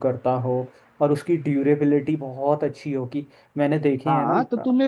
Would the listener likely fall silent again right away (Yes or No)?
No